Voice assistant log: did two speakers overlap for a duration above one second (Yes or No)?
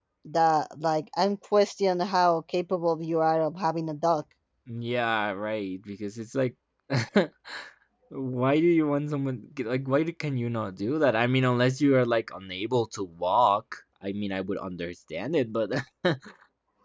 No